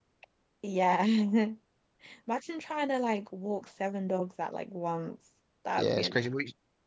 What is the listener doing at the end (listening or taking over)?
taking over